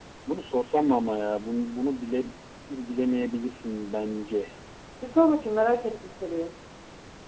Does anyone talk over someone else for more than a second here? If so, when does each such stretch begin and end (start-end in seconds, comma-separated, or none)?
none